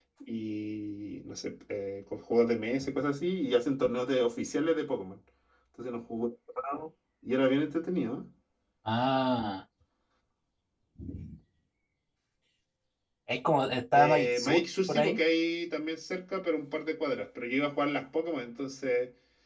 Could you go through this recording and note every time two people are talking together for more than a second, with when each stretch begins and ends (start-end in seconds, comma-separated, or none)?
13.9-15.2